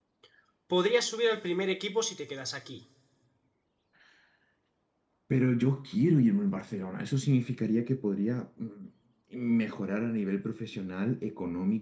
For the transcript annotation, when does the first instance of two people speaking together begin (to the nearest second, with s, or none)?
none